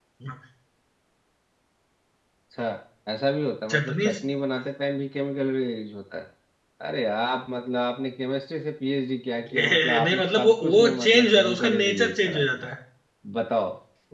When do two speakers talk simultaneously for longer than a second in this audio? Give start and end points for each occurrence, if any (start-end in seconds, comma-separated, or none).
9.6-12.7